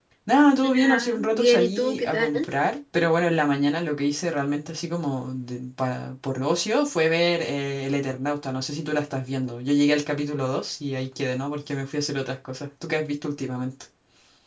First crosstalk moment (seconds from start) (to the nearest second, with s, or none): 1 s